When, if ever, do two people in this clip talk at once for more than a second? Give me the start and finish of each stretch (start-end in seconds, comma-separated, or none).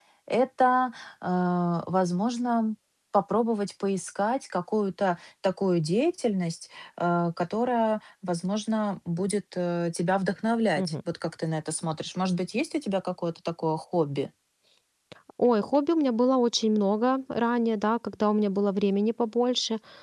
none